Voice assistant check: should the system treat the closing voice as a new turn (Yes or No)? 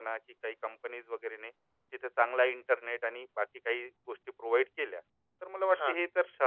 No